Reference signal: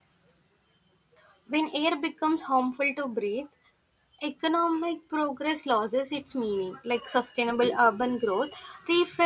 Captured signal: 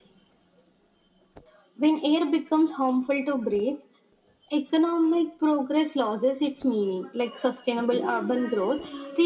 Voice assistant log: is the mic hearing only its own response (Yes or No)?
No